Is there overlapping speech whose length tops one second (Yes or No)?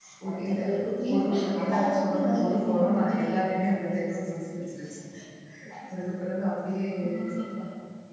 Yes